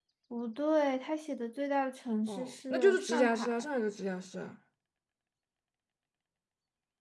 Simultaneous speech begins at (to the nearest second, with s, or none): 2 s